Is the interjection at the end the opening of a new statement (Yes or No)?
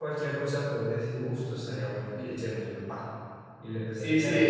Yes